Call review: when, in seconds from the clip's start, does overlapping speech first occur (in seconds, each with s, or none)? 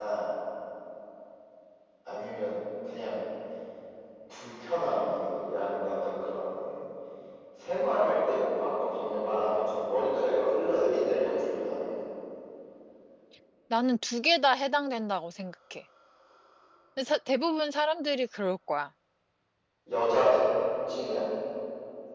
none